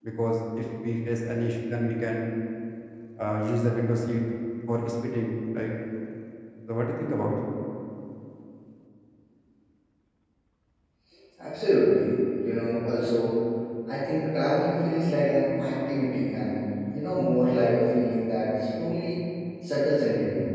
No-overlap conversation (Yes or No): Yes